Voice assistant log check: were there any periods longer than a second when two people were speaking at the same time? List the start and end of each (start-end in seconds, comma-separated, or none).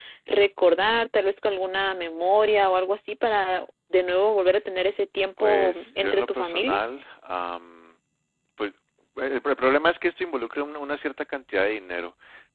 5.4-6.8